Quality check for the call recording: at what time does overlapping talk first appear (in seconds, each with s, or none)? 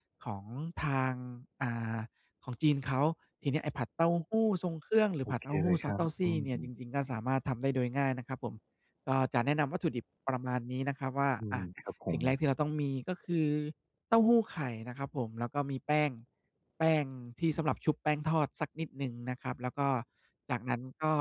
5.3 s